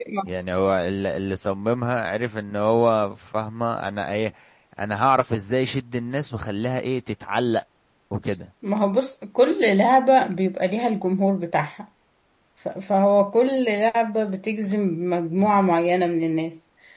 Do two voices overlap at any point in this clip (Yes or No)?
No